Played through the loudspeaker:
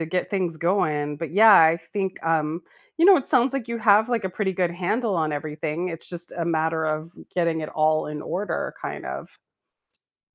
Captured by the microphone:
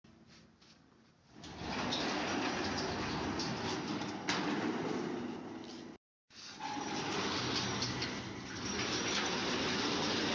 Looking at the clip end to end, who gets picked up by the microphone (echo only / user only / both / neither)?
neither